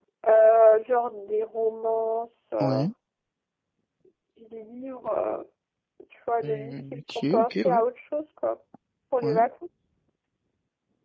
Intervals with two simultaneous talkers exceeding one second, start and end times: 6.4-7.8

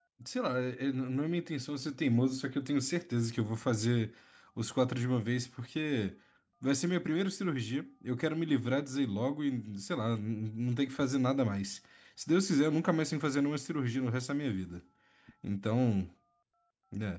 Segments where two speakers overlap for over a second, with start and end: none

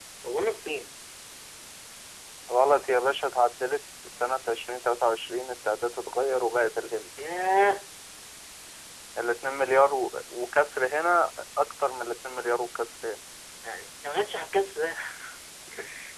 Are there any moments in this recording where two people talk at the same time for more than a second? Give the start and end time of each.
none

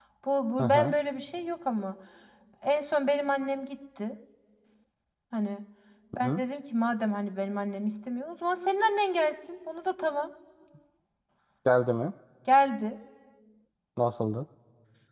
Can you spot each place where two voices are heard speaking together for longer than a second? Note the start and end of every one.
none

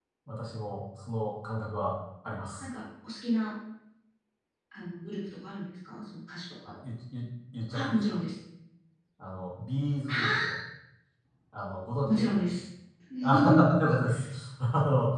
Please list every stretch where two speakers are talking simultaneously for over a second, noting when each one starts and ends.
none

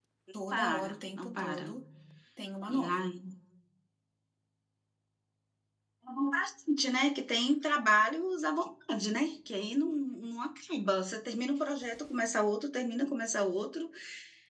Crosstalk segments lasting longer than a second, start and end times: 0.5-1.7

